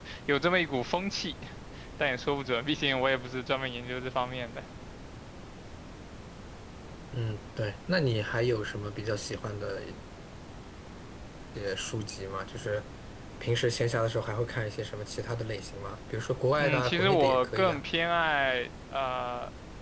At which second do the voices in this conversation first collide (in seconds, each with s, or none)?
16.6 s